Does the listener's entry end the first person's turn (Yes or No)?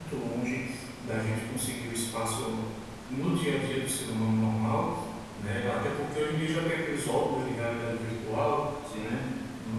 No